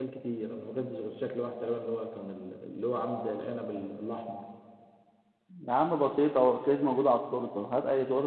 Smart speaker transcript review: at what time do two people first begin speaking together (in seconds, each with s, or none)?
none